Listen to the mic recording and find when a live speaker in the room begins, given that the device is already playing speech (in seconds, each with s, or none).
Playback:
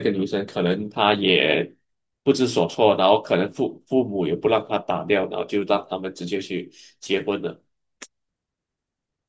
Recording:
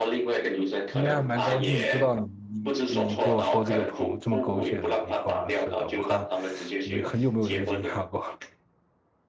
0.9 s